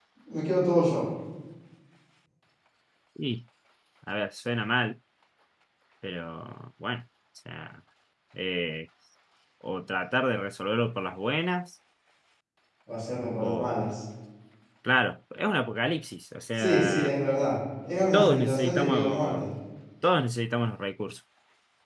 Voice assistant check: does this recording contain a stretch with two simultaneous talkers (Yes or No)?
Yes